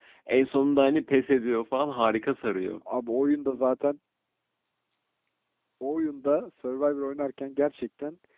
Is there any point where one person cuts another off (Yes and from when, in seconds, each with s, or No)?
No